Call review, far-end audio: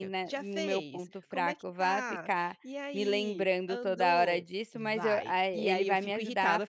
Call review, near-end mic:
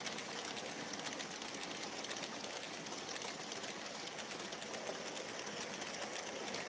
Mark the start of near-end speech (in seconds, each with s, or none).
none